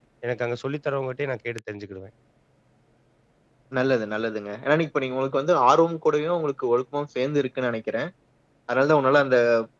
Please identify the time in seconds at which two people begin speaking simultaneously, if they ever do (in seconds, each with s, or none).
none